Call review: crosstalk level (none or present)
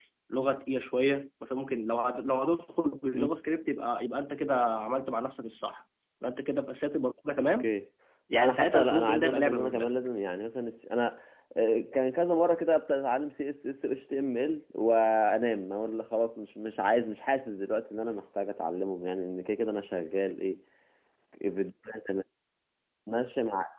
present